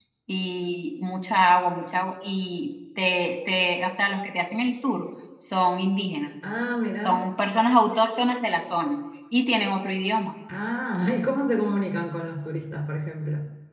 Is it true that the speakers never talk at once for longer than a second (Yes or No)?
Yes